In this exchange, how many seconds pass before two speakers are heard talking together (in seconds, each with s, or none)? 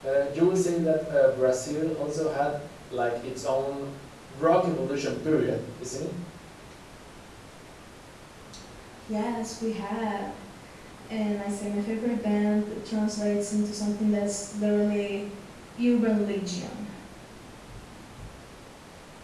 none